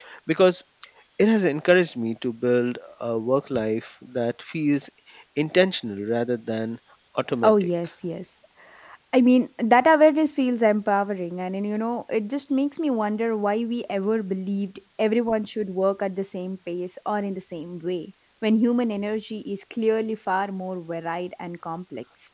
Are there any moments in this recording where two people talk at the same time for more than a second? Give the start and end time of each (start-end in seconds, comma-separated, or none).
none